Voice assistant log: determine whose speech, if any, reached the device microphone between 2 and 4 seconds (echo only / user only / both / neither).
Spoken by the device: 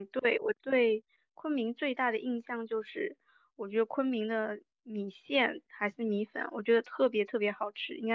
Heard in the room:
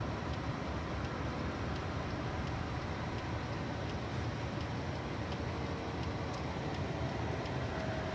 neither